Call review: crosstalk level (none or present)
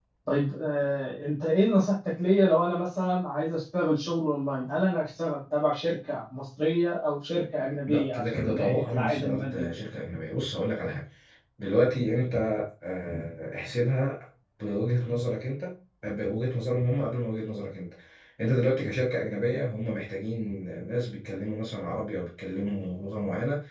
present